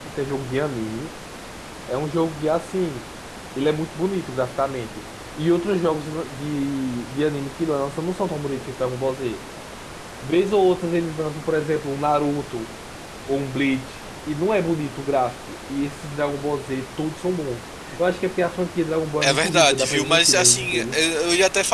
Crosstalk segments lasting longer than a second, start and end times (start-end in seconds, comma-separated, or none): 19.2-21.0